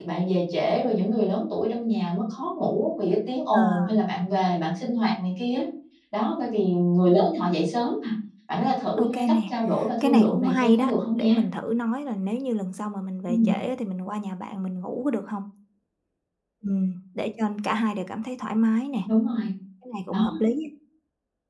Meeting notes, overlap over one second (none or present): present